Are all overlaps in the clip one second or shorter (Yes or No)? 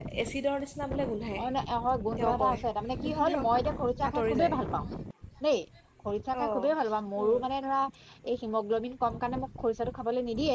Yes